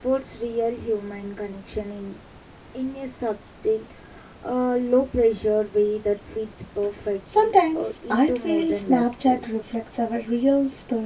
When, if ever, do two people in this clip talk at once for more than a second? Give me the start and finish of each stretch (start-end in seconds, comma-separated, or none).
7.3-9.4